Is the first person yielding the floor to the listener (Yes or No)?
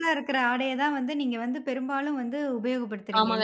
Yes